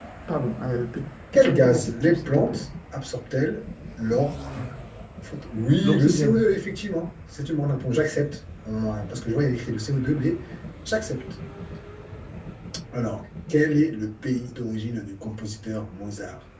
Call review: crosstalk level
present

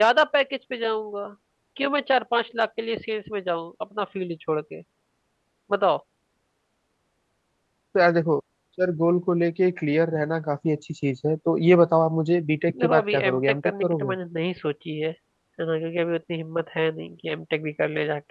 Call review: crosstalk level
present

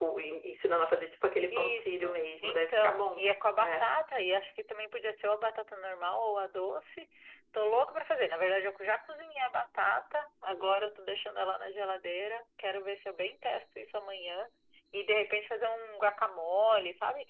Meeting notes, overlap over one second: present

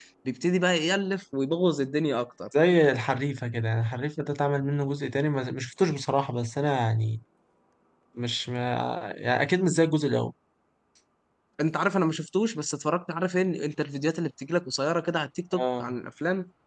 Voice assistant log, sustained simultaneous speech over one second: none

